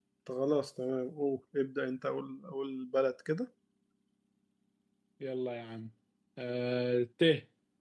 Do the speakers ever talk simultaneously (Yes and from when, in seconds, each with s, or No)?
No